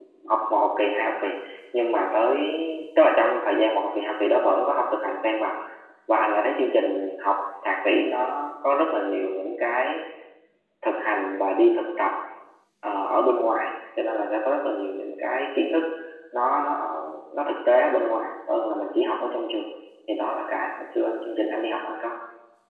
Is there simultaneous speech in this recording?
No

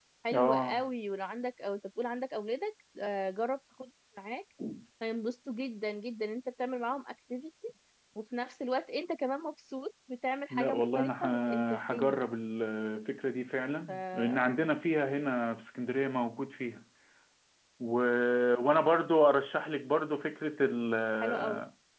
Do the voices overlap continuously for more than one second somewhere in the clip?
Yes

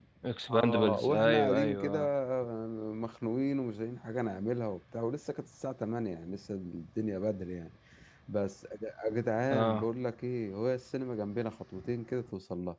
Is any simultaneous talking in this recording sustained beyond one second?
Yes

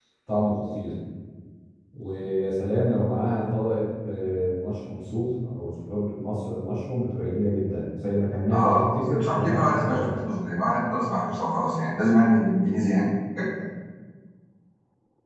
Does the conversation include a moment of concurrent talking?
Yes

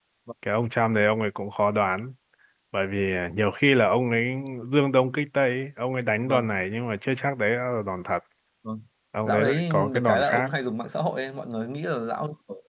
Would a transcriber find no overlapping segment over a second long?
No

